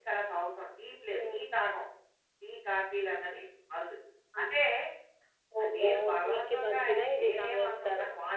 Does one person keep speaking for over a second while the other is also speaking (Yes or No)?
Yes